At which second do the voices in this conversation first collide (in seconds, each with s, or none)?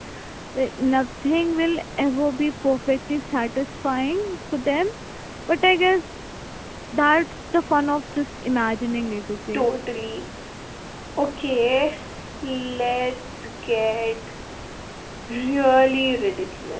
none